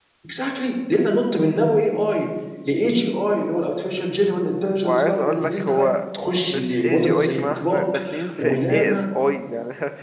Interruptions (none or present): present